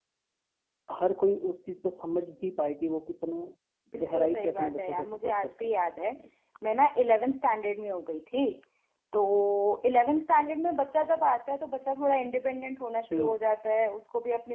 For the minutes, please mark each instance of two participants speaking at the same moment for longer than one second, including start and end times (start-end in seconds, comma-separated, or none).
3.9-5.7